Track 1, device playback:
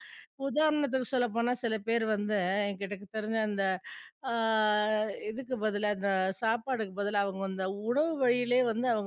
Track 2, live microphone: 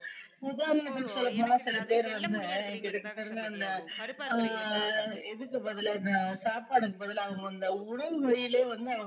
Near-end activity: present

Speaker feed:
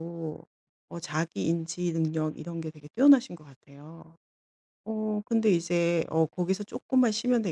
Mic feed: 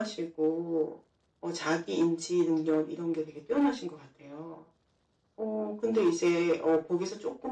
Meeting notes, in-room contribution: none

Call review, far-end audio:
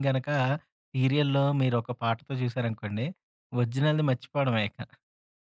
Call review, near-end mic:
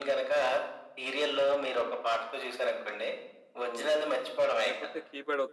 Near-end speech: present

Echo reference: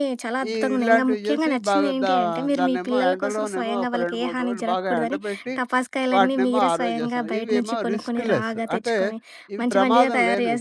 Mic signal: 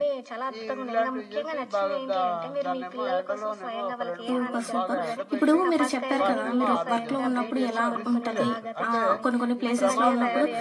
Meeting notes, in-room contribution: present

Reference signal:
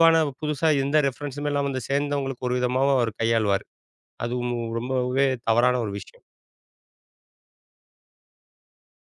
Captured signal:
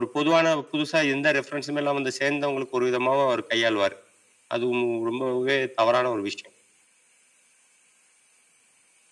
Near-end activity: none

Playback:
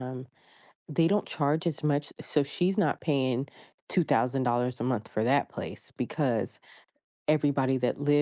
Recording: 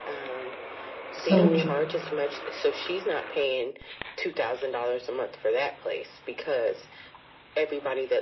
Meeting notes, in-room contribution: present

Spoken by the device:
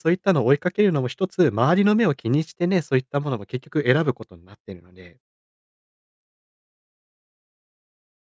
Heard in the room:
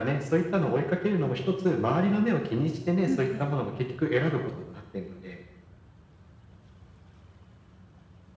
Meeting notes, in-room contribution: present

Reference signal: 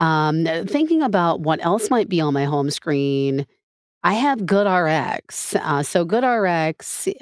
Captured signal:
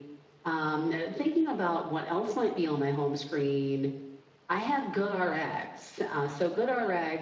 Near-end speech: none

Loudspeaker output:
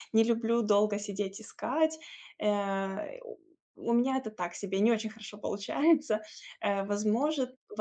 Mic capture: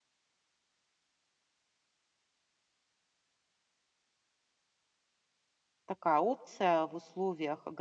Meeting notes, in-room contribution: present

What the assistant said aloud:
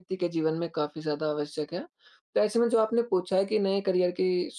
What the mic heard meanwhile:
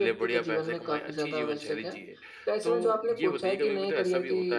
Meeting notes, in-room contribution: present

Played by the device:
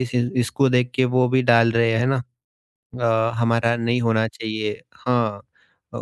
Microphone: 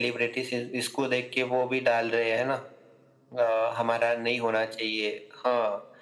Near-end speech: none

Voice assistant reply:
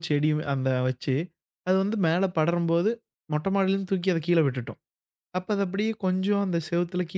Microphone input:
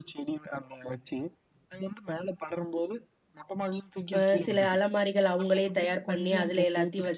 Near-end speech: present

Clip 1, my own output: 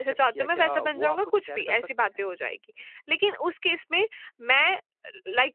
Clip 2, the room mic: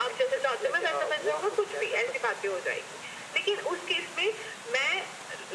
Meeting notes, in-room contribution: none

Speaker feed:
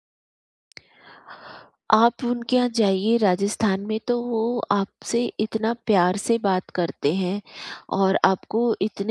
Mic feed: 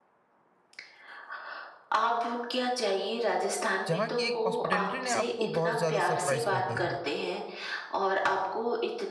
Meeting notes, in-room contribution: present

